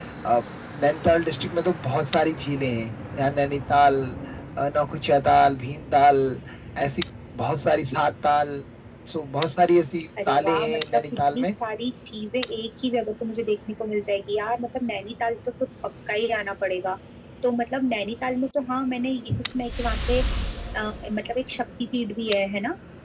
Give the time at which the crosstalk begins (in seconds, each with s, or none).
10.2 s